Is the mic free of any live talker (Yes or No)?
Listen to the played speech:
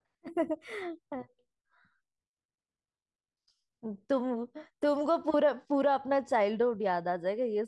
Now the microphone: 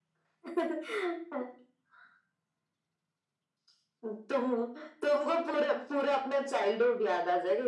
Yes